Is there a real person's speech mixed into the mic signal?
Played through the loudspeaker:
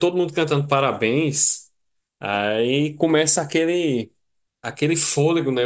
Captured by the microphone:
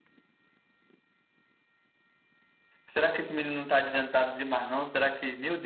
Yes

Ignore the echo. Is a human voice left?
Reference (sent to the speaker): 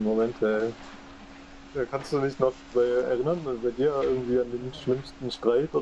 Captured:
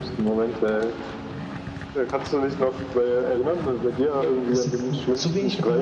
Yes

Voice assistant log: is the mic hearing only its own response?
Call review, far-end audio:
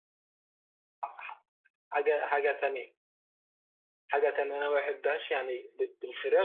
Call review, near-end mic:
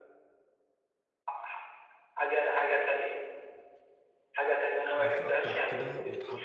No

